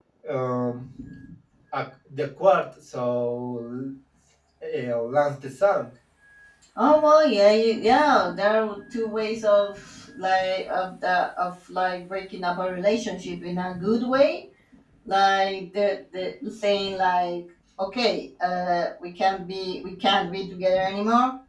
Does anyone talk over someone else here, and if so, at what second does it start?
none

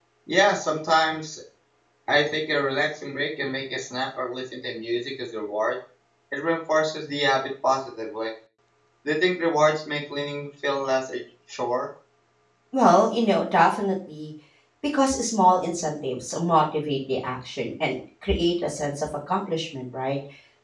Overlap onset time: none

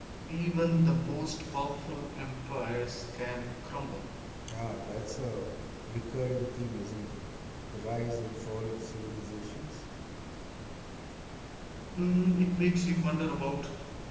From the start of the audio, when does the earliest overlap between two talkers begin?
none

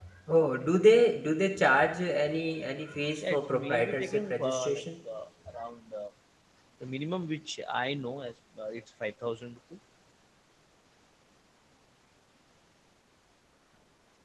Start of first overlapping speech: 3.2 s

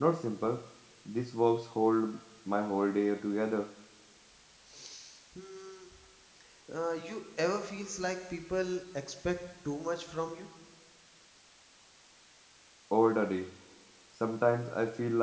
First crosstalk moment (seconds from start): none

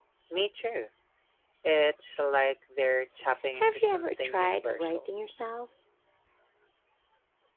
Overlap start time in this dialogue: 3.5 s

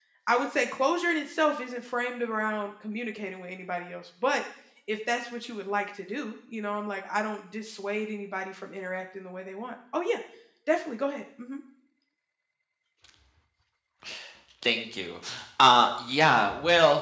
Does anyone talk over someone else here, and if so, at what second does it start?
none

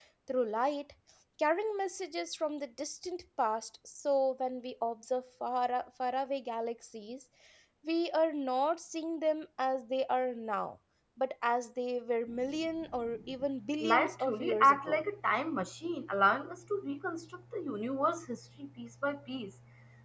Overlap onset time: 13.8 s

